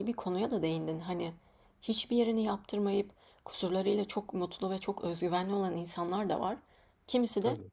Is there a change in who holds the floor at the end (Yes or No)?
No